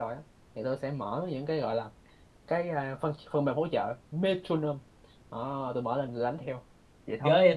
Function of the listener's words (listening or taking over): taking over